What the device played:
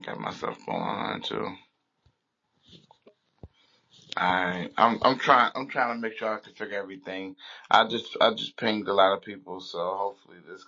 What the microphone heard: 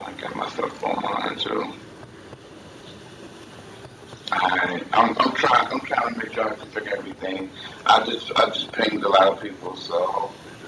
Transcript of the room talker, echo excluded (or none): none